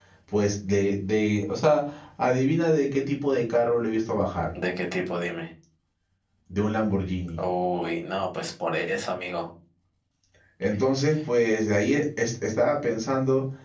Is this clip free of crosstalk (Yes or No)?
Yes